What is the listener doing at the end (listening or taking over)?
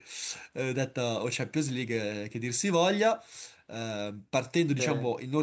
listening